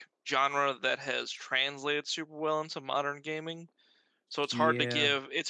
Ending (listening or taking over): listening